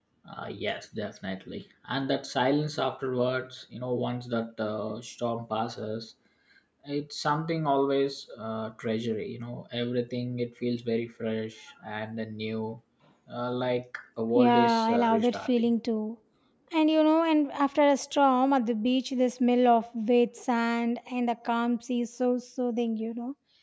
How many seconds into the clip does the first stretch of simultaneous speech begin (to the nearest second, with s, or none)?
14 s